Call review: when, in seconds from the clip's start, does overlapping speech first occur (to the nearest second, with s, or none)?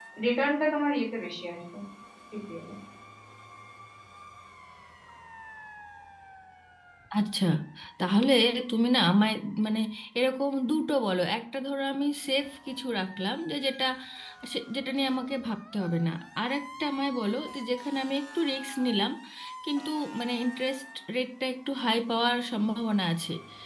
none